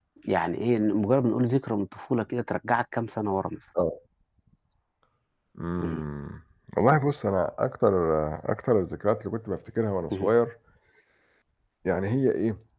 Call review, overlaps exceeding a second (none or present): none